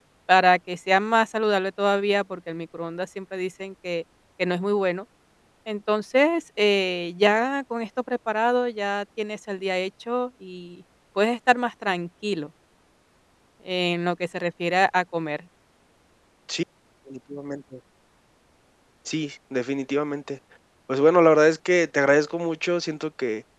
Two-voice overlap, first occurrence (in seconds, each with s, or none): none